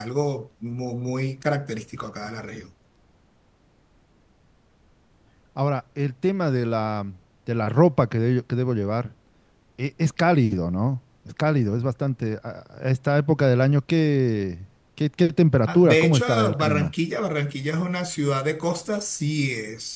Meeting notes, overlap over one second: present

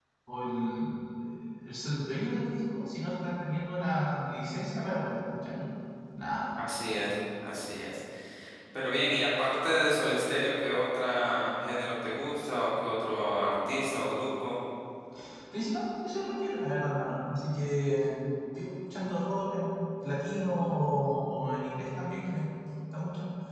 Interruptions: none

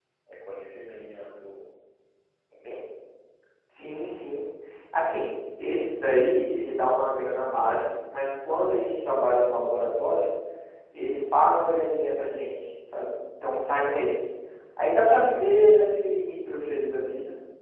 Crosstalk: none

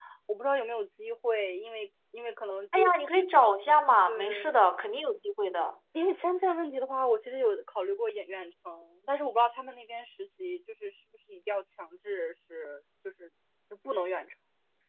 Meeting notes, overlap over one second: none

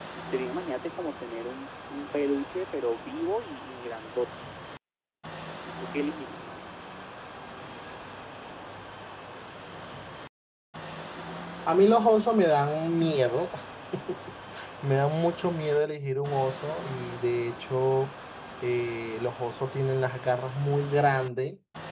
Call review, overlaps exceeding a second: none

